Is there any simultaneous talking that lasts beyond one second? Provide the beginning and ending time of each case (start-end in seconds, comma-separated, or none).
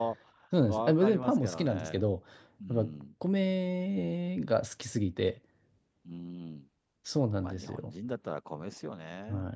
0.7-2.0